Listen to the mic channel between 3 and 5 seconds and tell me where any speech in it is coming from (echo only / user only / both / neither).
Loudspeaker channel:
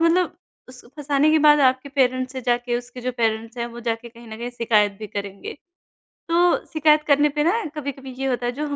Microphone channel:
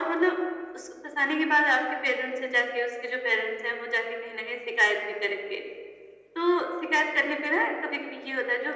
echo only